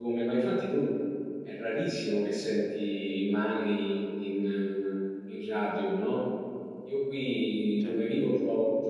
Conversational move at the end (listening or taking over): listening